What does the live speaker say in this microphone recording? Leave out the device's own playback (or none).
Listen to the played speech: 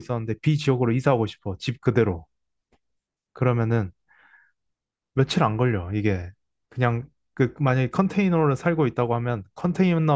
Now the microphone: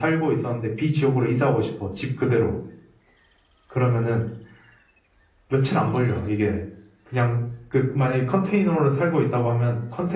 none